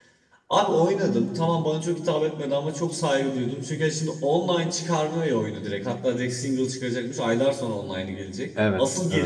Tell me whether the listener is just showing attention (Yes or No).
Yes